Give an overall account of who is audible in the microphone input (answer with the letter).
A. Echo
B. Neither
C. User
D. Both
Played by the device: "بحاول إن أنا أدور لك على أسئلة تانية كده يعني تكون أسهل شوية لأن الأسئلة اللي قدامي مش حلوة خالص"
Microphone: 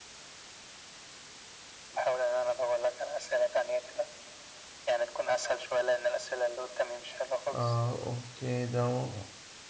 D